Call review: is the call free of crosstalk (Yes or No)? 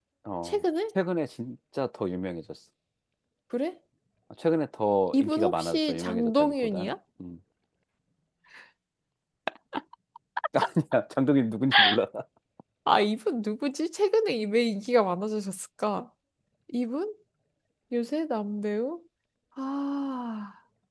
No